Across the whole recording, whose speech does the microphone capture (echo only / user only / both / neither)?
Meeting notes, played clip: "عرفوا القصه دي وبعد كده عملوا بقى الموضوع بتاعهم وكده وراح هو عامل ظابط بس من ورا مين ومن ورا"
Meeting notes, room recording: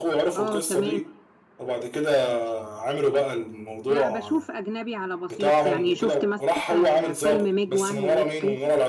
both